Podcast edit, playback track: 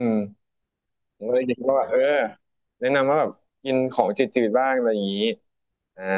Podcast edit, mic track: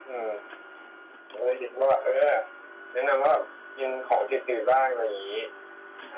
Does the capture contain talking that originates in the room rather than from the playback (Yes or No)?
No